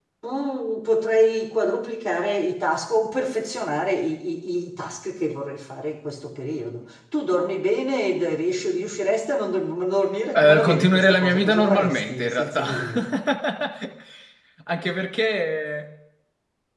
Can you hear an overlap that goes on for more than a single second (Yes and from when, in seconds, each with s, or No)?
Yes, from 10.3 s